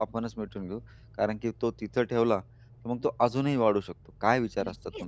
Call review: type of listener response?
taking over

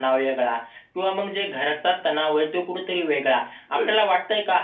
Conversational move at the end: listening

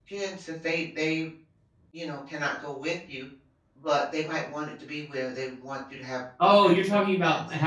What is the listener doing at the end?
taking over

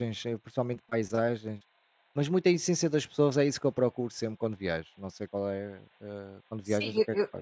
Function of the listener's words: taking over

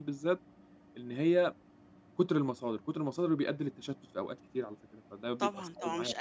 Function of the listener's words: taking over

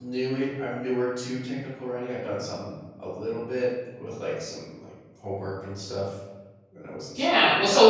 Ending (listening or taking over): taking over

